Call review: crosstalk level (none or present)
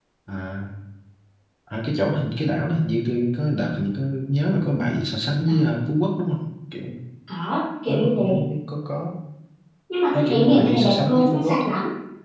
present